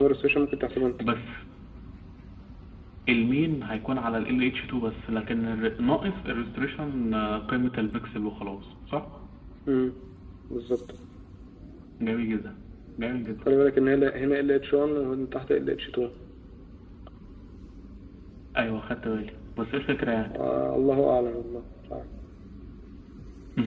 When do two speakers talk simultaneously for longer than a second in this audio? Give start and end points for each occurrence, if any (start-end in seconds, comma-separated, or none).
none